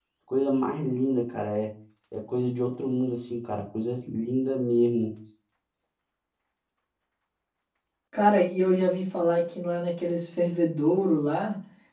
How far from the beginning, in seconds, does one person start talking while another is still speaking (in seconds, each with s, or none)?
none